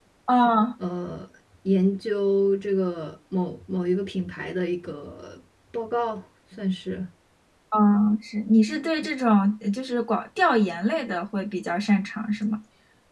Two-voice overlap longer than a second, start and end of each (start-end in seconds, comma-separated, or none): none